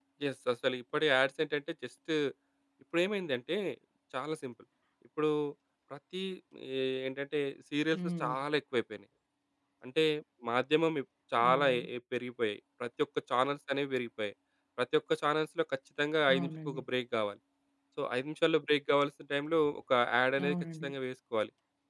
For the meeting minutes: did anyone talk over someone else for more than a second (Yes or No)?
No